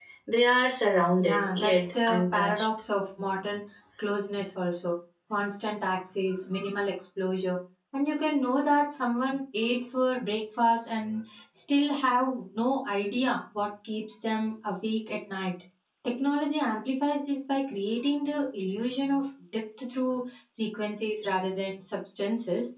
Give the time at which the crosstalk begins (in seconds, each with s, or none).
1.2 s